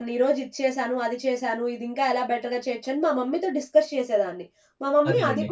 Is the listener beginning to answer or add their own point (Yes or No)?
No